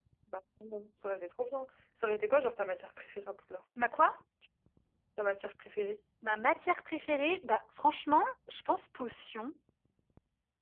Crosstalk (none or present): none